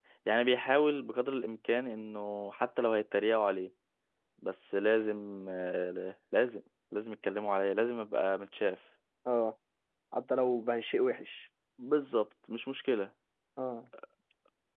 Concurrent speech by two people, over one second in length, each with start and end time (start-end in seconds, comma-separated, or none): none